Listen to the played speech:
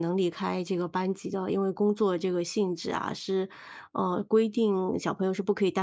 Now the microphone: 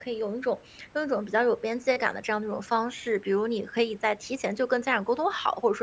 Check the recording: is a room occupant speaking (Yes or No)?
Yes